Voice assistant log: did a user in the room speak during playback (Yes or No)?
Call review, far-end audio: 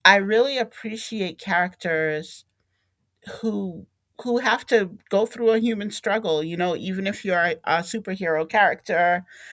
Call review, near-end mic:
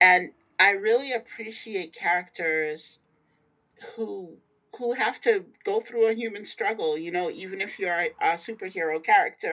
No